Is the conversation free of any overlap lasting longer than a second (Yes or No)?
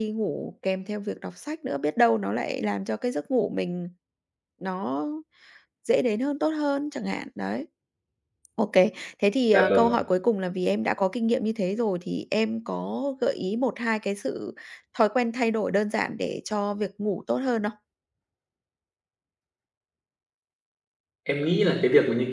Yes